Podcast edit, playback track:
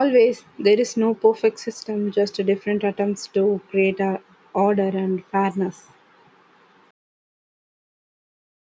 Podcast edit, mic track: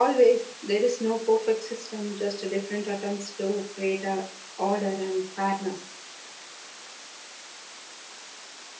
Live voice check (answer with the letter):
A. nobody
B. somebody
A